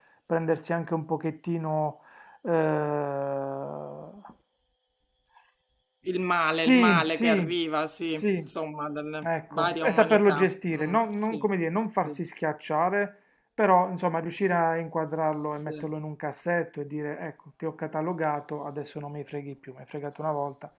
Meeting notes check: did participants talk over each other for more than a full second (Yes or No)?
Yes